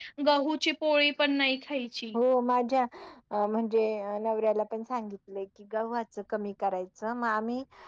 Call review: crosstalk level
none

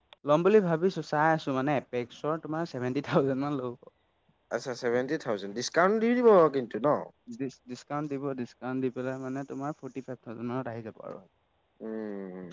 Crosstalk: none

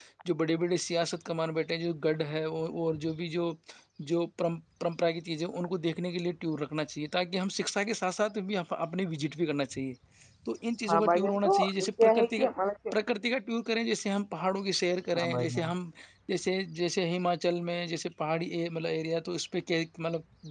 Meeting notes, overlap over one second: present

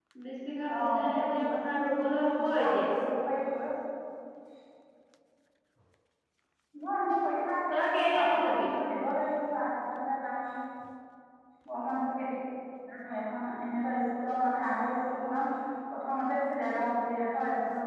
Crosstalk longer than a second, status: present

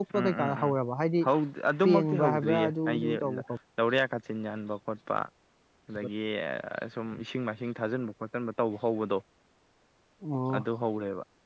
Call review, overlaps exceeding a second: present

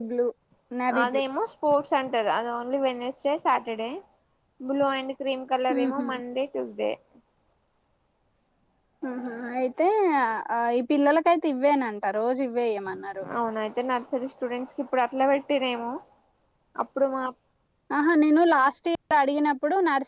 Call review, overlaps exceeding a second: none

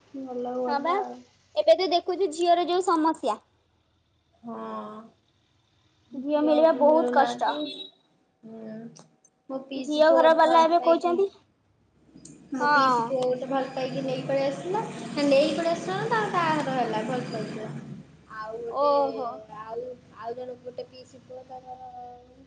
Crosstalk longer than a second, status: present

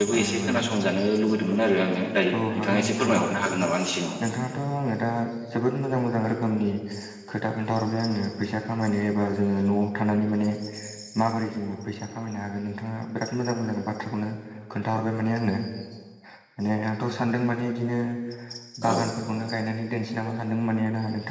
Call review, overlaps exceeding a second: present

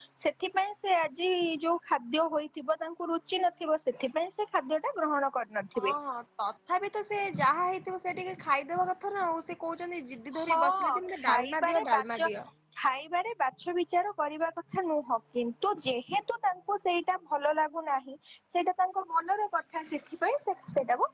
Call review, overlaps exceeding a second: present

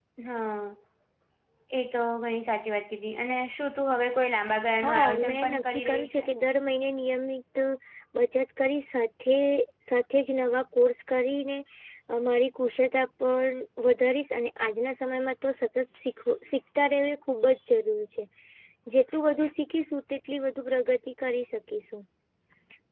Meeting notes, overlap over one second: present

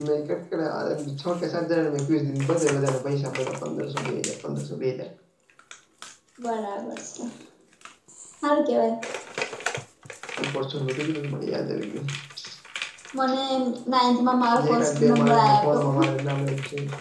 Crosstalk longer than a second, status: present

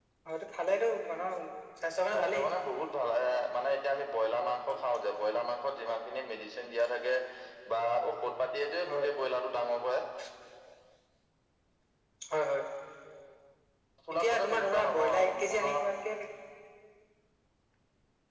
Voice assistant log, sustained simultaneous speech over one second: present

